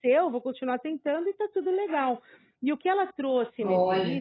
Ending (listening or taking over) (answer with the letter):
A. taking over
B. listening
B